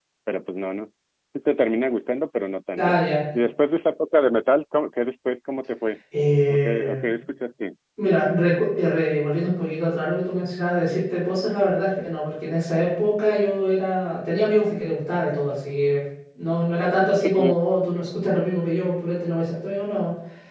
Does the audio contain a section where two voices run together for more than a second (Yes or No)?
No